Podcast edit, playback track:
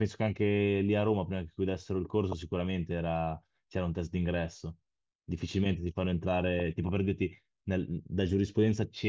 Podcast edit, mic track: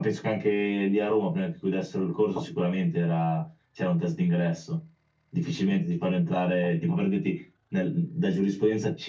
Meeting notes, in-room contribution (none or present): none